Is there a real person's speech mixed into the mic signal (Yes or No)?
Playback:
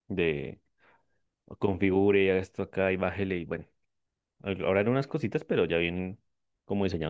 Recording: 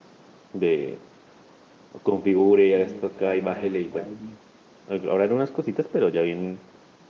Yes